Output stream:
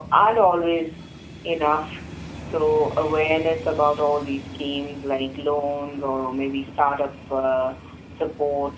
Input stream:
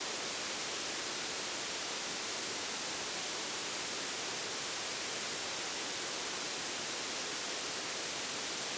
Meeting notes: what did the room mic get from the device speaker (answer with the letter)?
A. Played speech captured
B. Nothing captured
B